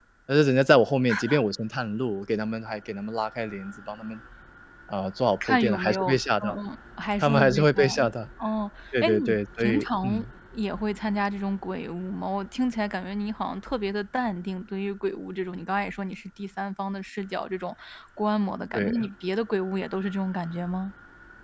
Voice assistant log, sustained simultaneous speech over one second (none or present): present